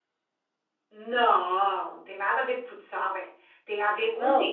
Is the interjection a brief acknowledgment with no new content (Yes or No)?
No